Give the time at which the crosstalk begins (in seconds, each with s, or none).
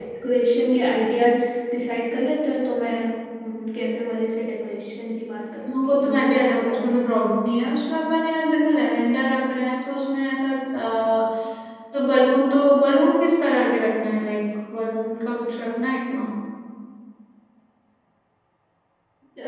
5.7 s